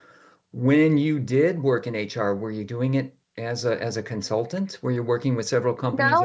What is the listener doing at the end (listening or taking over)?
taking over